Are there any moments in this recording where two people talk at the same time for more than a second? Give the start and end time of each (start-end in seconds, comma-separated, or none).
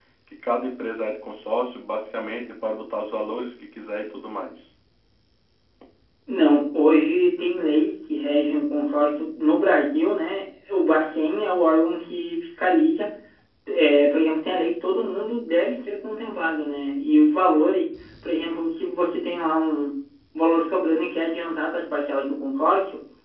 none